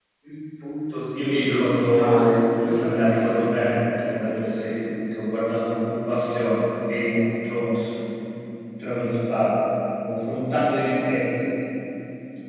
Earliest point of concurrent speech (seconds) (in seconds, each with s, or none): 1.1 s